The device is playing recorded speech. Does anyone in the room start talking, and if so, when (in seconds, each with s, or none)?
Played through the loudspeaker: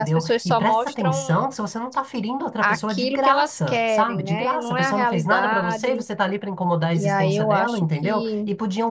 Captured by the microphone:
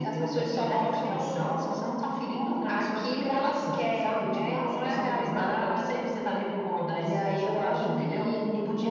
none